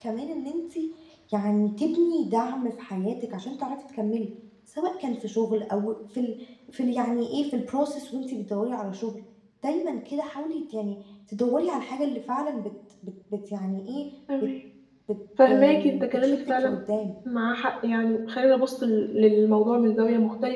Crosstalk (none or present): present